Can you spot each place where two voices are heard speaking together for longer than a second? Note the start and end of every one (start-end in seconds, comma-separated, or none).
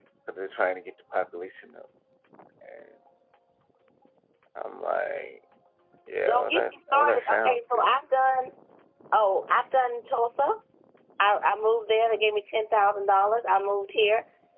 6.2-8.0